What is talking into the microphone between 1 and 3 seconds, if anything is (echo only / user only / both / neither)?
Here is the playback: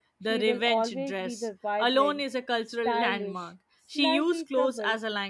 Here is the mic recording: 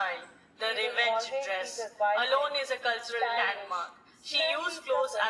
echo only